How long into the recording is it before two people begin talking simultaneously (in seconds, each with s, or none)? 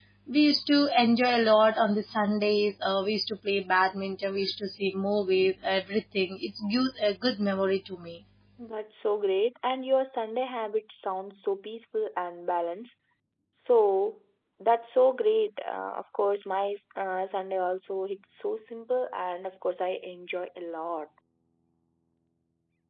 none